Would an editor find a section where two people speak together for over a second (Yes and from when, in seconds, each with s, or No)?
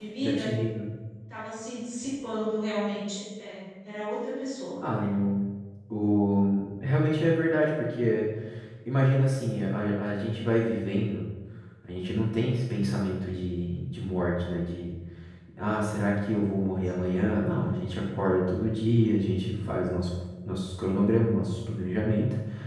No